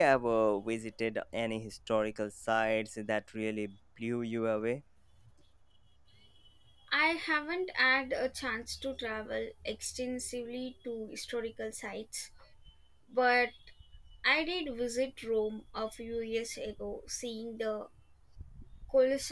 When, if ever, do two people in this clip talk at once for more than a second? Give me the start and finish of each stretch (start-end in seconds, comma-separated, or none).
none